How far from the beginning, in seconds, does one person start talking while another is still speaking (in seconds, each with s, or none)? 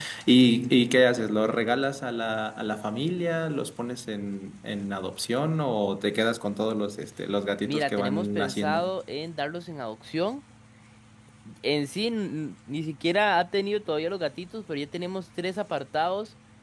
7.6 s